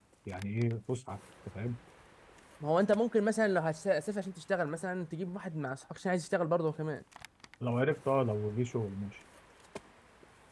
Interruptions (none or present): none